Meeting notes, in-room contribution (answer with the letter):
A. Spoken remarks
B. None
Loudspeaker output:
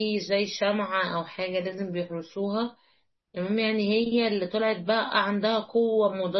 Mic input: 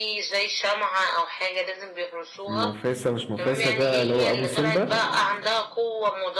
A